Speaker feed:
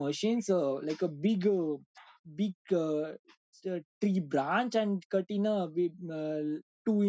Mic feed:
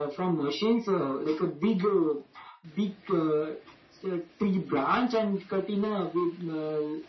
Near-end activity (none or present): none